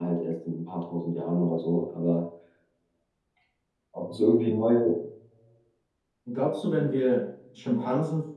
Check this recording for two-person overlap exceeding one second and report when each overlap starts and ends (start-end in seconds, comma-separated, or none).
none